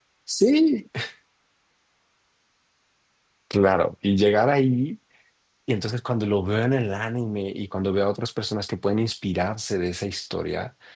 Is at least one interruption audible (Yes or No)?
No